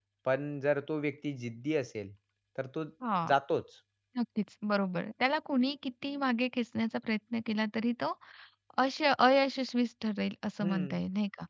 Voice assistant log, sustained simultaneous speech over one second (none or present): none